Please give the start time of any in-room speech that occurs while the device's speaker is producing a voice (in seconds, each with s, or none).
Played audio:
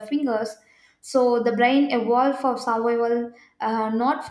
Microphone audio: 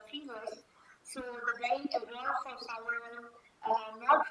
none